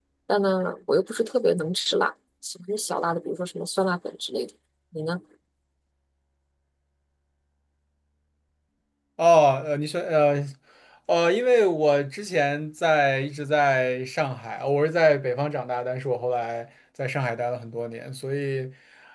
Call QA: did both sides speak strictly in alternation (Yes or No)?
Yes